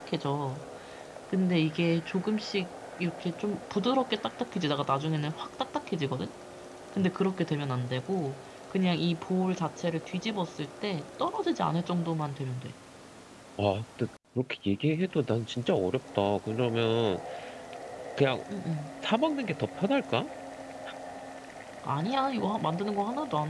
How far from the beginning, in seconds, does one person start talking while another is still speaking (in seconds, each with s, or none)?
none